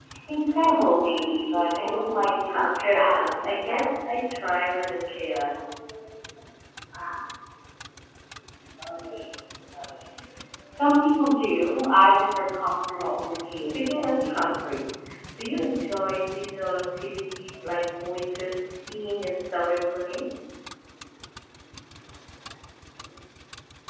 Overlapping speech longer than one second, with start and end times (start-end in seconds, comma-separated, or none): 2.5-3.9, 13.0-14.5